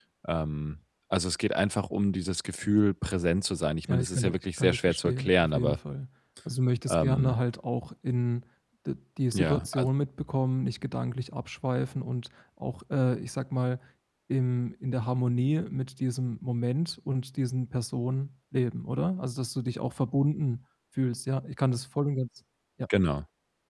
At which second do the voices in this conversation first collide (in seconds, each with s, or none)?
3.9 s